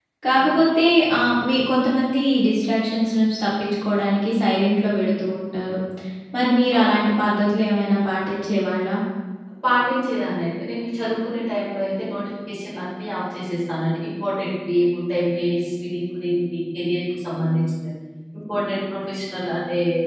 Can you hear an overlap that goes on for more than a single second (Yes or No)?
No